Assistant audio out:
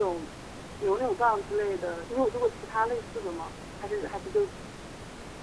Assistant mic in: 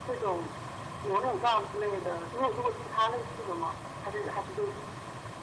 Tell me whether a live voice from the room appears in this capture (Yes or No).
No